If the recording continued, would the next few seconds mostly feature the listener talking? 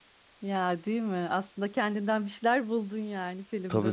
Yes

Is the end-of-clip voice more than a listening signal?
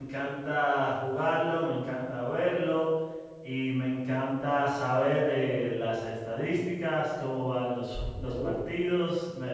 No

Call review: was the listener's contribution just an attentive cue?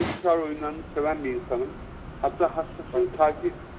Yes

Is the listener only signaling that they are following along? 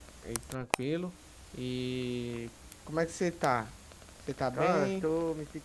No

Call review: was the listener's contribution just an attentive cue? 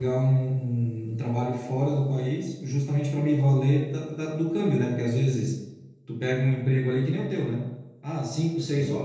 Yes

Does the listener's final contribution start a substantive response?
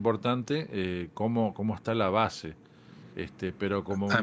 Yes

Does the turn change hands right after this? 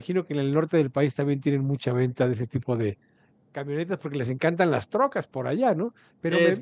No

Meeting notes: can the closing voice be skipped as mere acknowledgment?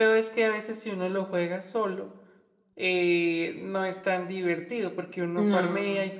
Yes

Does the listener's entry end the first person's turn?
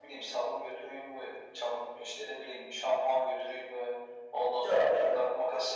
No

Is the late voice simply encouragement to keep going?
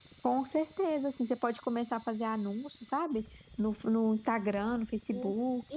No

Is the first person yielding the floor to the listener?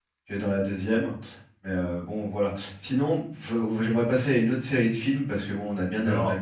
No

